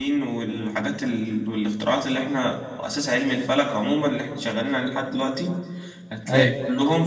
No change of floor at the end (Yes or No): Yes